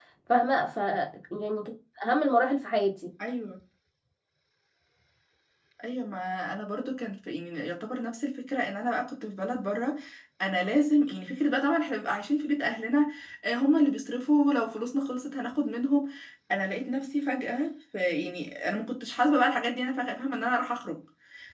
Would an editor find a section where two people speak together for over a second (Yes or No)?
No